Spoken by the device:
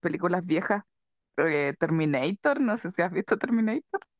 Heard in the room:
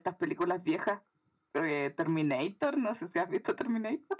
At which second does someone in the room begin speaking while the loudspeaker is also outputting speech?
none

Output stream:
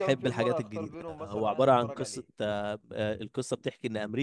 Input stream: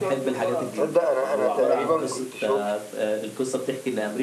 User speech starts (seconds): 1 s

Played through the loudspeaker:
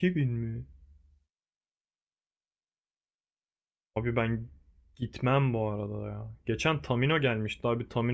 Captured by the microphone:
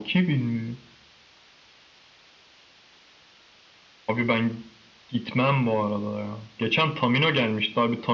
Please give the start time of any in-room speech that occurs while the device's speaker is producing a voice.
none

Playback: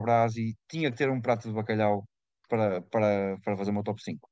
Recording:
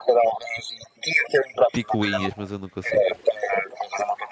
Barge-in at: 2 s

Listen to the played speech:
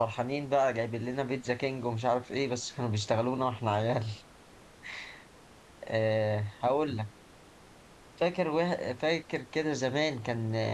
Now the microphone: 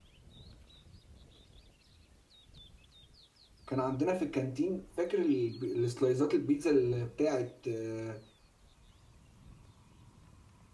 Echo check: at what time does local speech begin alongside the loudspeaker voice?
4 s

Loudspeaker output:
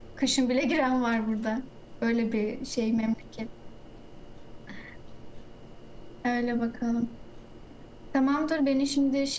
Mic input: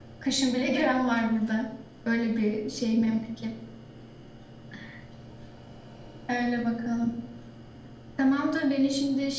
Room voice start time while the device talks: none

